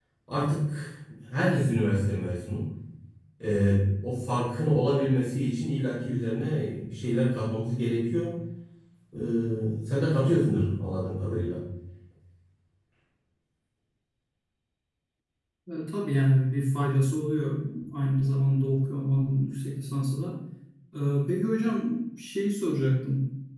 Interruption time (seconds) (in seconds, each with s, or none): none